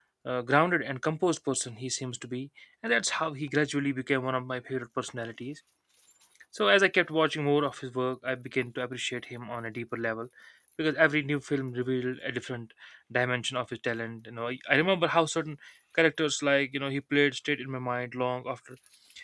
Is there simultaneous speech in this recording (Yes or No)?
No